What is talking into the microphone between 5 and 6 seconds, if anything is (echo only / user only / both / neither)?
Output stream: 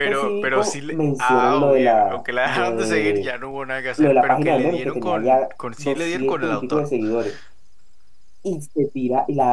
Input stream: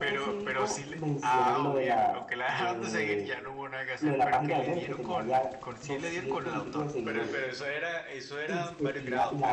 echo only